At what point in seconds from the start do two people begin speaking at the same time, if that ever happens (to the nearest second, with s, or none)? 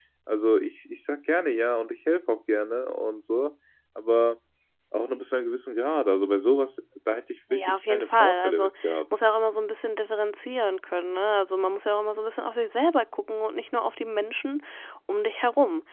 7 s